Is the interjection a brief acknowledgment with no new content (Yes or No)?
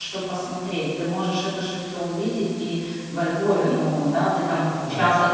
Yes